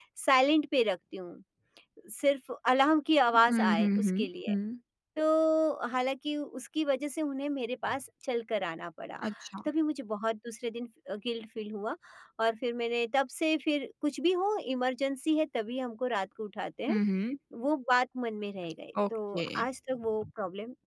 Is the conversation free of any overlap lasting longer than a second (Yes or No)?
No